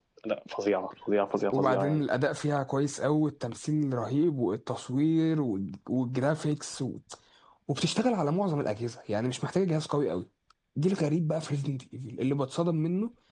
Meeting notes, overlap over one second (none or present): none